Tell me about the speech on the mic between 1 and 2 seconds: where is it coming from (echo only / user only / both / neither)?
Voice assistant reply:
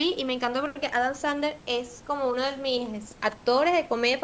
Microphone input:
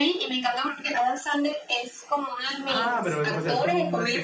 echo only